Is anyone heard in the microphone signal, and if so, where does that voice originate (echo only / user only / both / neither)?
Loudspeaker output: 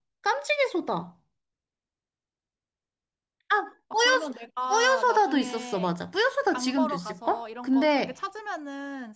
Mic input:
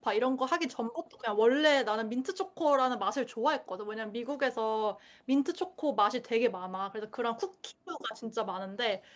user only